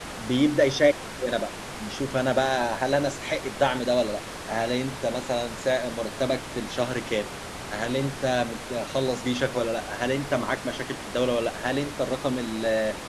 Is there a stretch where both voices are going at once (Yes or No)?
No